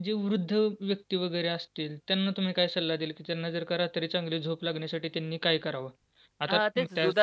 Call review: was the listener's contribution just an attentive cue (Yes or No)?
No